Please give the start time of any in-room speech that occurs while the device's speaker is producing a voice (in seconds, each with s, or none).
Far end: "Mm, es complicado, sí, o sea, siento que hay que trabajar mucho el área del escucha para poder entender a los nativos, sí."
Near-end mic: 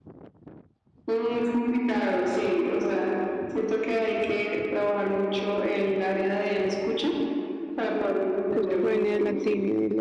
8.5 s